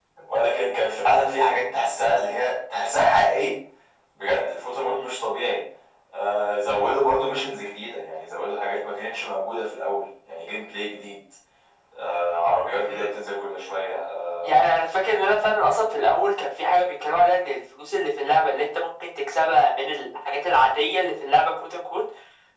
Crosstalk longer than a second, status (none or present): none